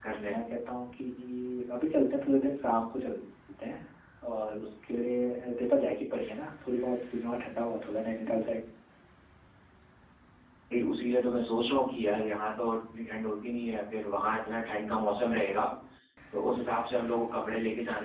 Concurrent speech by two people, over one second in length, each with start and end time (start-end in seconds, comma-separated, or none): none